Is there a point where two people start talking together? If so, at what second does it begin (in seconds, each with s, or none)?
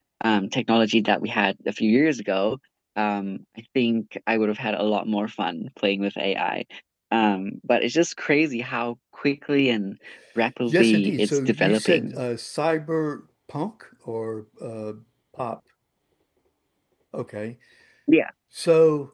10.7 s